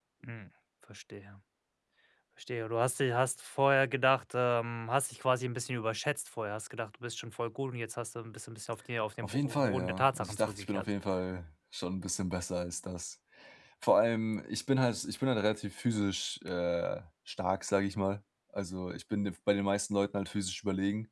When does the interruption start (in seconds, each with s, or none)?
9.2 s